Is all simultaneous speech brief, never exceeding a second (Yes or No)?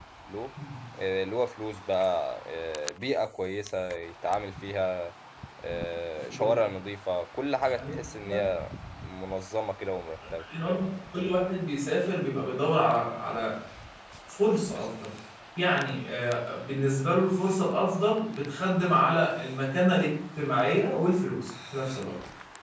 Yes